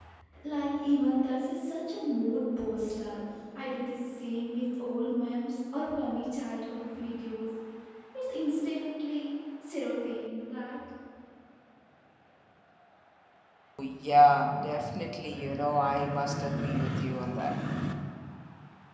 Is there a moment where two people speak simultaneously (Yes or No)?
No